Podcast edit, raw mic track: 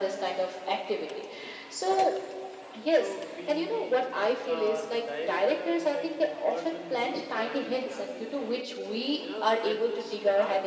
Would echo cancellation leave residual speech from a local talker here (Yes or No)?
Yes